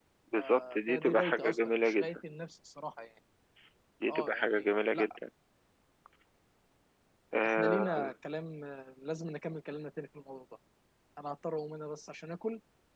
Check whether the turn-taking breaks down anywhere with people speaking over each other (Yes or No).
Yes